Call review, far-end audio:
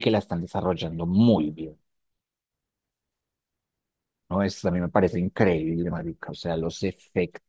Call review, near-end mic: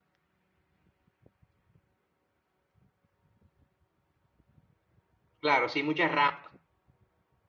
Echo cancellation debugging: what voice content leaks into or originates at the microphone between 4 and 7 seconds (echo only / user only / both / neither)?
user only